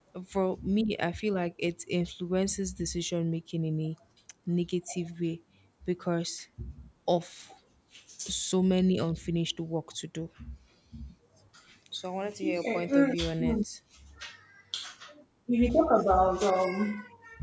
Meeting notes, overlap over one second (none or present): present